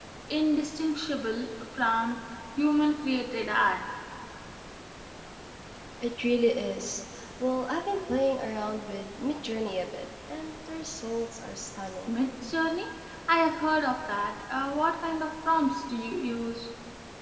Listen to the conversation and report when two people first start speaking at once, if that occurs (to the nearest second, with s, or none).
none